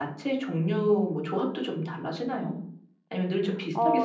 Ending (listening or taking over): taking over